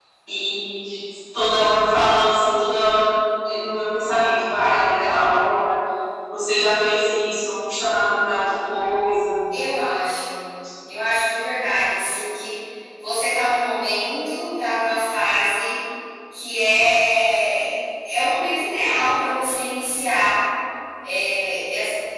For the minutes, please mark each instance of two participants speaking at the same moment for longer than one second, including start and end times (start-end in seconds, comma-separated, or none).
none